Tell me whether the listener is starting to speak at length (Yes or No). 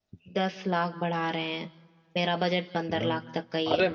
Yes